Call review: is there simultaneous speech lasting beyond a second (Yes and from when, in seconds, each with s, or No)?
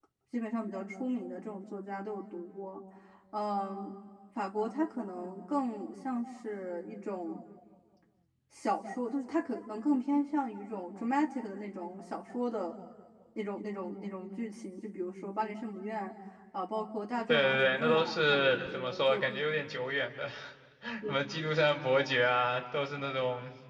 Yes, from 17.3 s